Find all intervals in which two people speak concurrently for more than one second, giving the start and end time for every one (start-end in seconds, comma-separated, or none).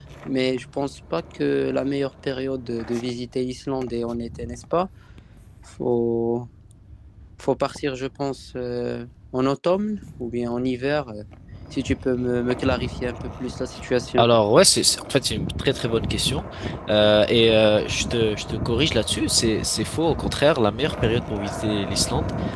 none